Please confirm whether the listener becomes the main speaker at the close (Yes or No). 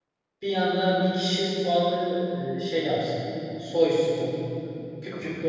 No